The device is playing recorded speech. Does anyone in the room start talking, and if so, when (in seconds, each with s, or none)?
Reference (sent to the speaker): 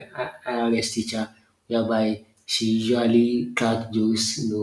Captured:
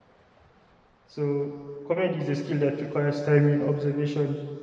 1.1 s